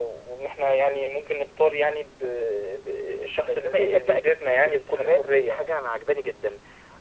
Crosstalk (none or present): present